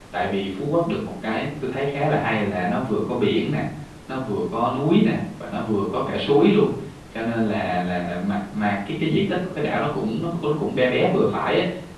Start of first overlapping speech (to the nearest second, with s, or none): none